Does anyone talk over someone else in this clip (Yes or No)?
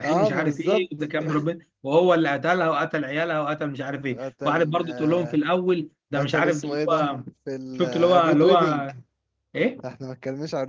Yes